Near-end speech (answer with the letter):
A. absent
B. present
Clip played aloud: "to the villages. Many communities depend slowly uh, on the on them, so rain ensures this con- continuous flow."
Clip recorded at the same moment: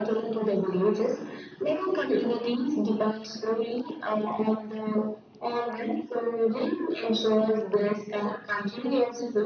A